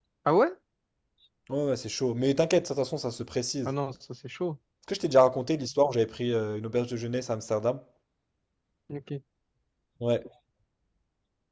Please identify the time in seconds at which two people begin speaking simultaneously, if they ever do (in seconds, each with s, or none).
none